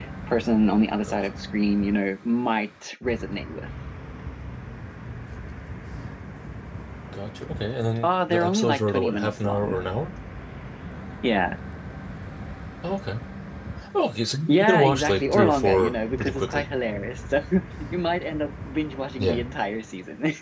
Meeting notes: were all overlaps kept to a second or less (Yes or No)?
No